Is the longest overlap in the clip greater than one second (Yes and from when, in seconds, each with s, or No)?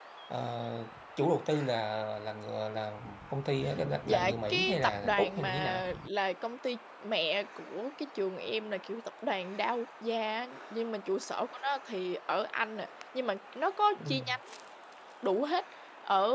Yes, from 4.0 s